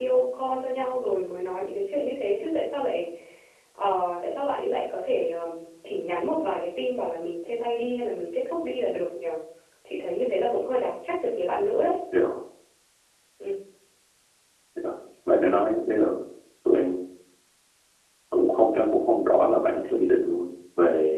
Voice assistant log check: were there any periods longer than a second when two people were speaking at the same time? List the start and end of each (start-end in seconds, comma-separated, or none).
none